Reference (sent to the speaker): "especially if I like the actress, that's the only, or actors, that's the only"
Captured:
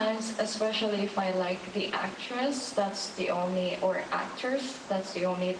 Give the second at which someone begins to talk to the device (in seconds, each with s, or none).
none